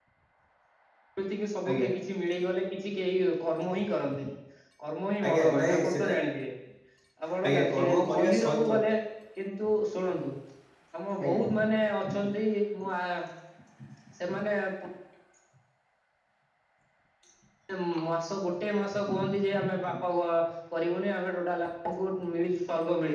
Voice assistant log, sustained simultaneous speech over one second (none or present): present